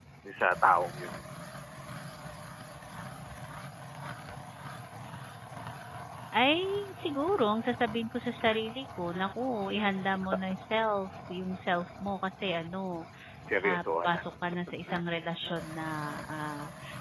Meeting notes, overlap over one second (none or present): none